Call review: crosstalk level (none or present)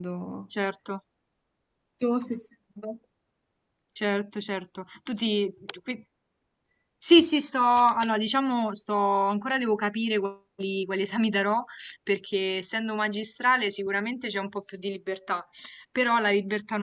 none